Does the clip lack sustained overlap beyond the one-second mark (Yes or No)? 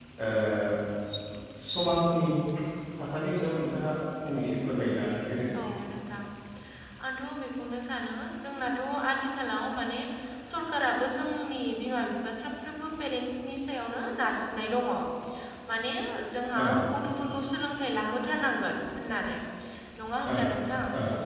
Yes